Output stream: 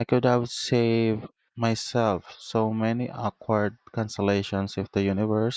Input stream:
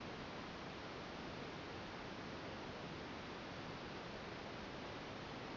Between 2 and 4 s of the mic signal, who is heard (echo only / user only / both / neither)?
neither